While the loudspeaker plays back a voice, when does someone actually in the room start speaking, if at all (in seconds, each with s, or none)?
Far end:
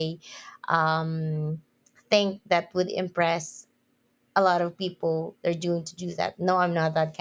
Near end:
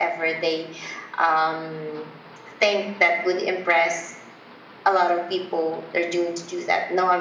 none